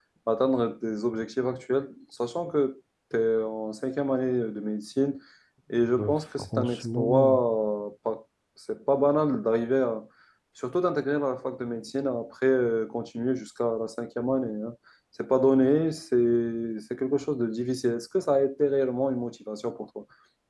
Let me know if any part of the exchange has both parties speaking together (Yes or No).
Yes